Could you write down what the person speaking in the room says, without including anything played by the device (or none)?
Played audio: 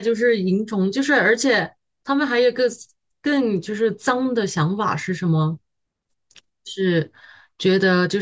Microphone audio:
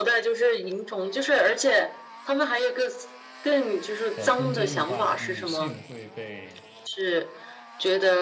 呃，通奸的话，女性会被